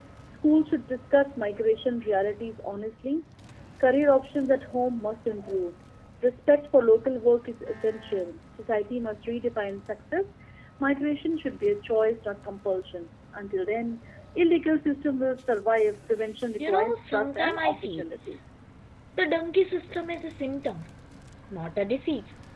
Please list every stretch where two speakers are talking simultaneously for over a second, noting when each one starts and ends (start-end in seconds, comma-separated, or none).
16.6-18.0